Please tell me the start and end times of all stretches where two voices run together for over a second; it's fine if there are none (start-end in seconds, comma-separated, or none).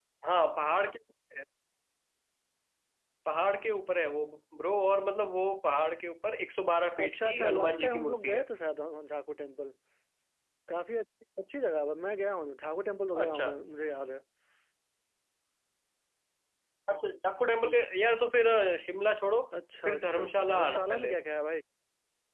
7.0-8.4, 19.8-21.1